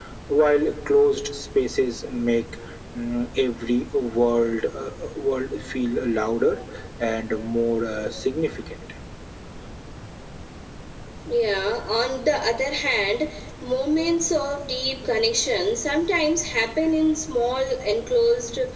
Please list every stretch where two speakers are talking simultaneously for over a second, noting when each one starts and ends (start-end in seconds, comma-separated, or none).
none